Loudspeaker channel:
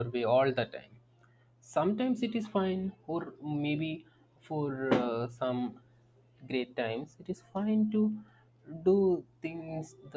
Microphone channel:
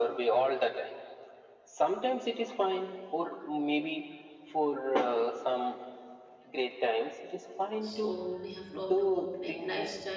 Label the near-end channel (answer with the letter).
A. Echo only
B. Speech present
B